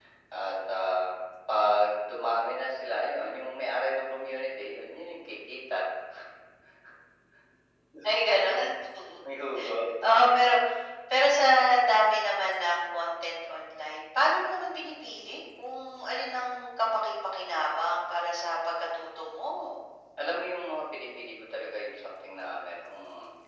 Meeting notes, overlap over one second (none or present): none